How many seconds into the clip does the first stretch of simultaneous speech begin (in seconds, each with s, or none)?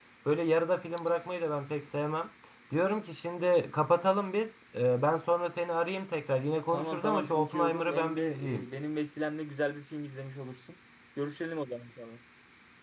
6.7 s